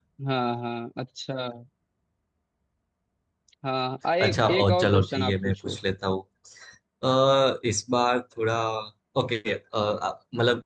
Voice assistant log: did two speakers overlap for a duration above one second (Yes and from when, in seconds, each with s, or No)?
Yes, from 4.2 s